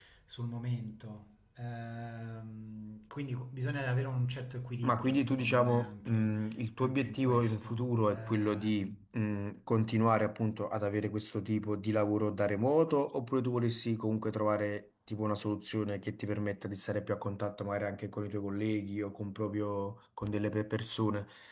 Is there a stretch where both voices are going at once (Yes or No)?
Yes